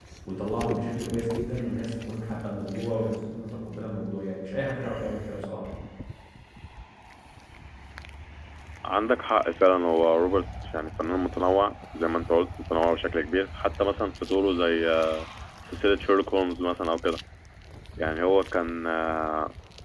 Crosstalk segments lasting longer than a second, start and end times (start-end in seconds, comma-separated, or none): none